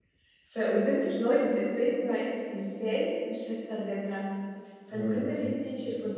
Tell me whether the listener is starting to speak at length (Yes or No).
No